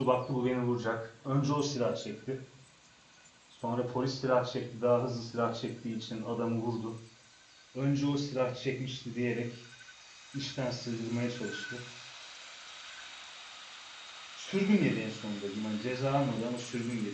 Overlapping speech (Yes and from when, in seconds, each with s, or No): No